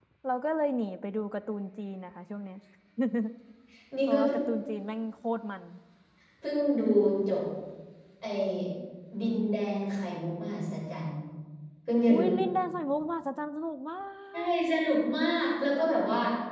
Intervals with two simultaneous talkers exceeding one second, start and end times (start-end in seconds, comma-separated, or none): none